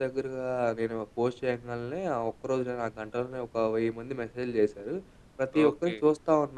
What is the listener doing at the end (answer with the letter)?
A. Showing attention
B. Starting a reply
A